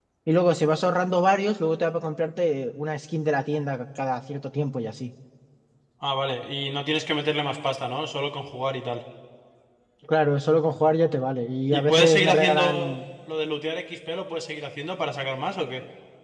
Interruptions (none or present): present